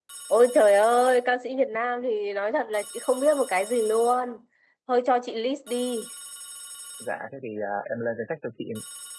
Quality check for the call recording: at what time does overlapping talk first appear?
none

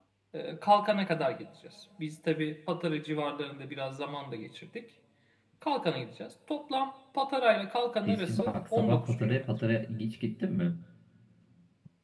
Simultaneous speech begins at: 8.1 s

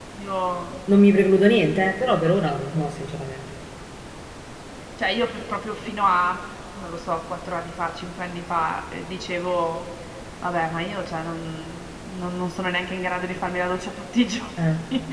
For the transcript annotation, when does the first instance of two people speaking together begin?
none

